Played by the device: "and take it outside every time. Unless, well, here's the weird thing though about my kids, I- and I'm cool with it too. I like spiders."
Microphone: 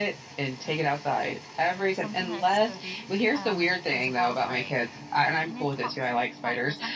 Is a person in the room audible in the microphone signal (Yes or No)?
Yes